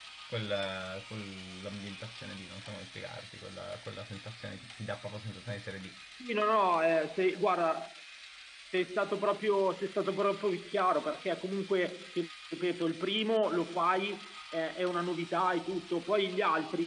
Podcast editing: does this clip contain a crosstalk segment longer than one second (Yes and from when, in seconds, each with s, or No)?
No